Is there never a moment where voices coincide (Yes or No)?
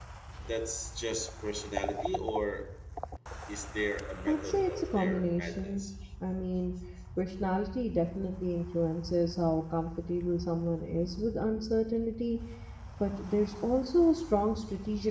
No